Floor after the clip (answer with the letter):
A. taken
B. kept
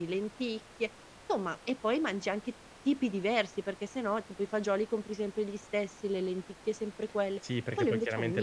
A